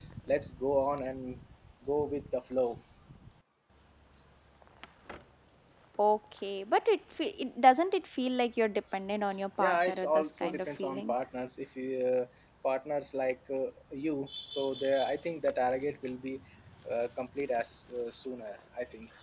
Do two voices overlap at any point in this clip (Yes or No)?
Yes